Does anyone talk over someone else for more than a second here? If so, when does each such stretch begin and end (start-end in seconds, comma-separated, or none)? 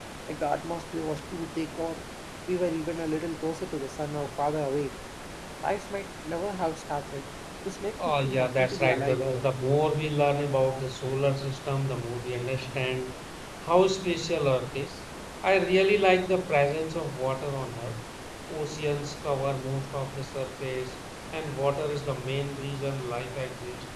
8.1-9.4